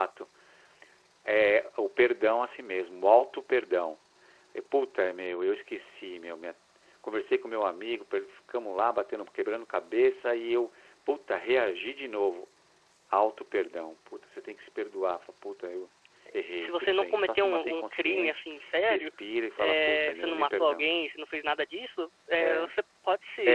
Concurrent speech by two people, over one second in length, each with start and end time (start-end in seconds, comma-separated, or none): 16.6-18.4, 19.6-20.8